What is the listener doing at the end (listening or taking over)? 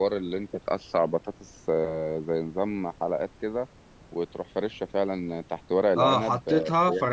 taking over